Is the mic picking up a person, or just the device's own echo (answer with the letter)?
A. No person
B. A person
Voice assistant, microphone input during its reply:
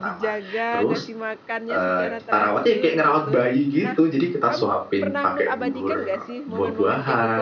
B